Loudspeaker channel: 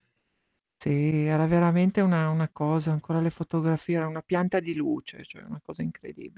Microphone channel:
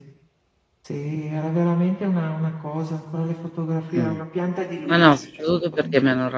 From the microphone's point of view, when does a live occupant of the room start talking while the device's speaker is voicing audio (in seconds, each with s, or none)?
3.9 s